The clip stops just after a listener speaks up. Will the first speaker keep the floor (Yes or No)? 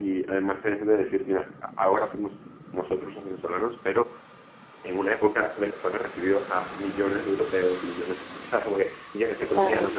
Yes